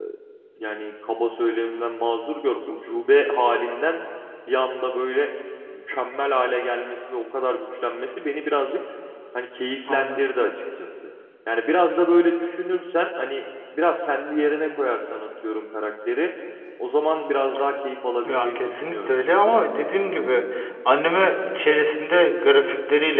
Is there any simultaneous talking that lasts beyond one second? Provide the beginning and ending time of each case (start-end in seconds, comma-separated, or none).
18.2-19.7